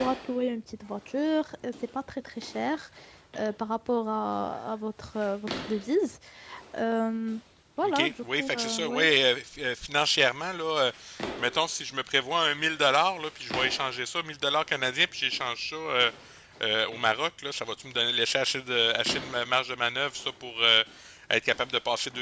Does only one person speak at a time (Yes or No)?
No